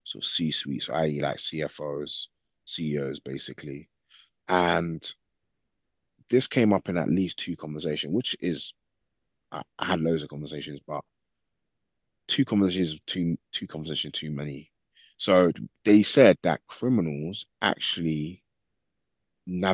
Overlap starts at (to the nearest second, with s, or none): none